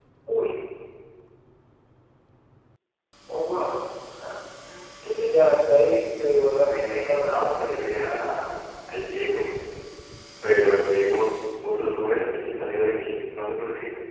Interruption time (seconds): 7 s

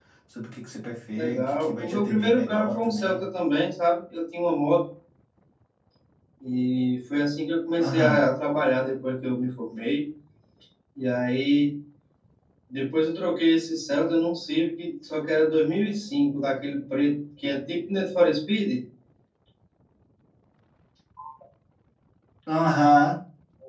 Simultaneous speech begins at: 1 s

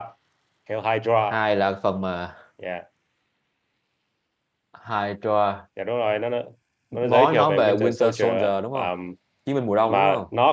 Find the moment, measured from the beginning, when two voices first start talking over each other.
7 s

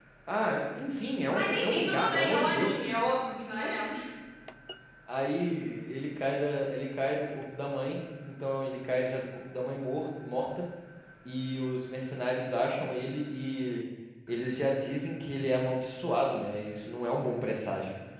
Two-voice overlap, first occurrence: 1 s

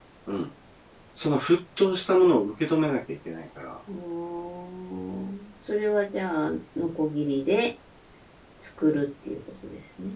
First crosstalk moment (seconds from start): none

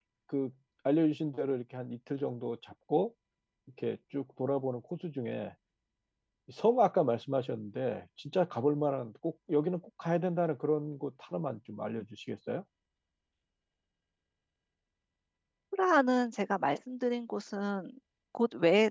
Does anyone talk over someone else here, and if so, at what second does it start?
none

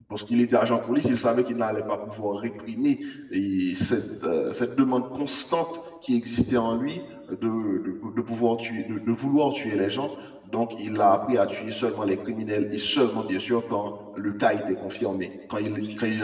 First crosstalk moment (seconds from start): none

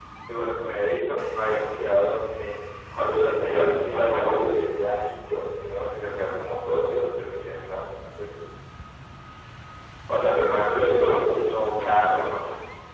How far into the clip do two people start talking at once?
3 s

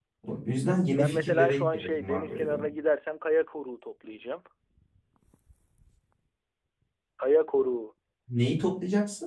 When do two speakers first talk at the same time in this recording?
1 s

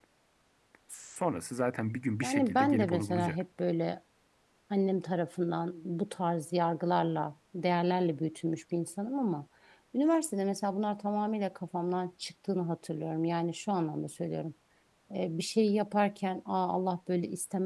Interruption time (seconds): 2 s

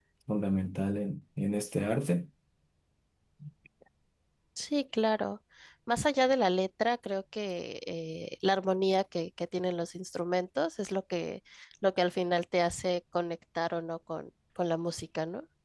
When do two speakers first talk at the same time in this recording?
none

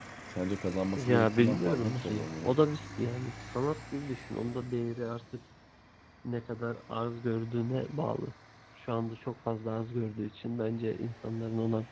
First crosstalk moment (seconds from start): 1 s

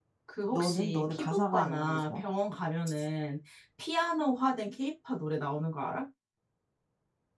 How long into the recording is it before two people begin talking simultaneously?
1 s

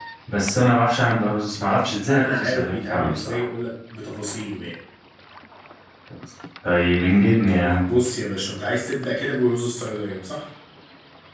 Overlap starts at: 2 s

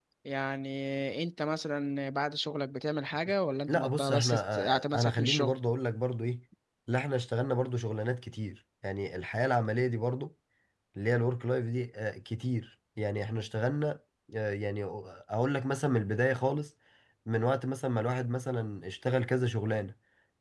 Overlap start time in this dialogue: 4 s

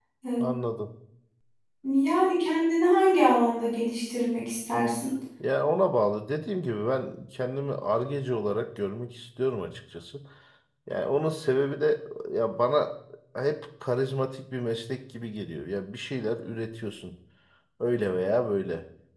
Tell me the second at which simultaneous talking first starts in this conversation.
none

